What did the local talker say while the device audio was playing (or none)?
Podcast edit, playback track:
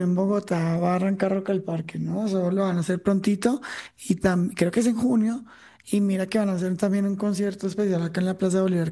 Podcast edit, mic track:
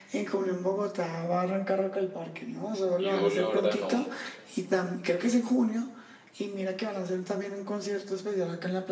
Yo la verdad no,